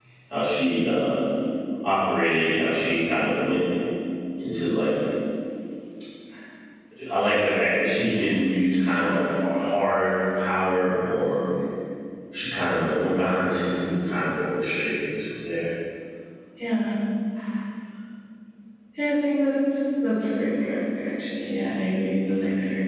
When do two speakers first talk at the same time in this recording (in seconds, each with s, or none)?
none